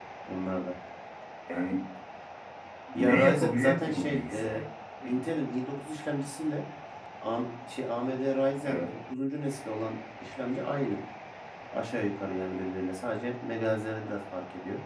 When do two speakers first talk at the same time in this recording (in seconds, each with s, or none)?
2.9 s